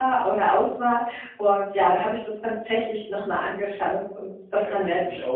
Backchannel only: No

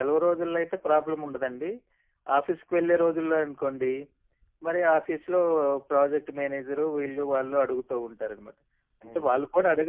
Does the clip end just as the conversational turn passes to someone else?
No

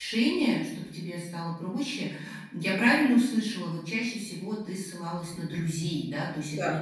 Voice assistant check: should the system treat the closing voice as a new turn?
No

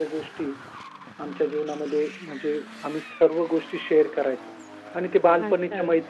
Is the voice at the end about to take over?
Yes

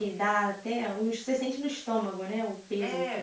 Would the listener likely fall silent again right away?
No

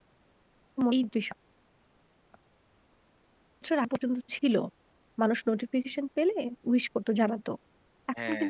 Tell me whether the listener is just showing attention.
Yes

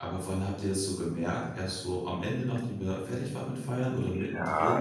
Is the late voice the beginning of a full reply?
Yes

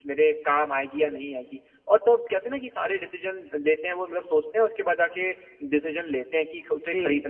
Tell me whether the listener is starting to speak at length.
No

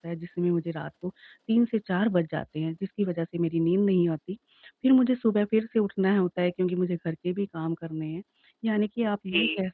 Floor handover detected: No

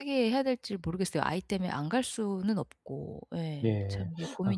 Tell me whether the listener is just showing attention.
No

